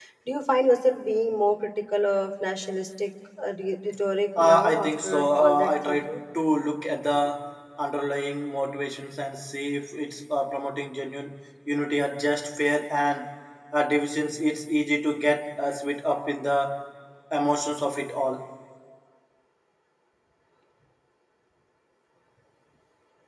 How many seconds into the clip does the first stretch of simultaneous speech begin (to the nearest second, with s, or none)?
4 s